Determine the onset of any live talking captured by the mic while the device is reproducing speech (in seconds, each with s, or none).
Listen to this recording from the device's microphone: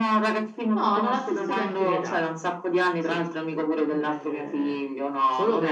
0.8 s